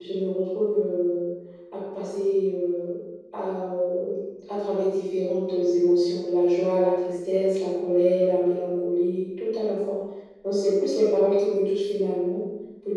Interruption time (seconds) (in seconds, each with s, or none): none